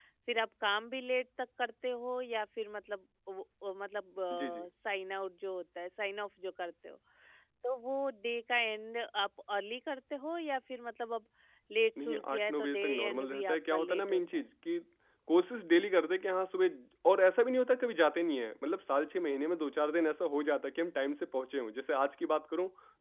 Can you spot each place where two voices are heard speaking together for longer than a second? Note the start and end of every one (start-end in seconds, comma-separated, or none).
12.0-14.4